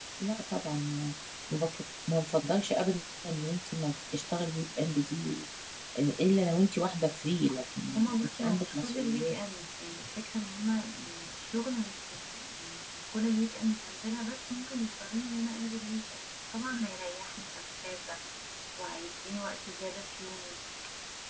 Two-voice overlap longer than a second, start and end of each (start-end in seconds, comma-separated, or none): 8.0-9.4